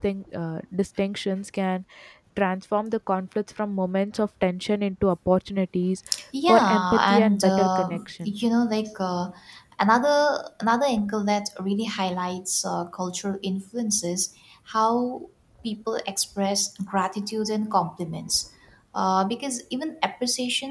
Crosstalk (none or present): present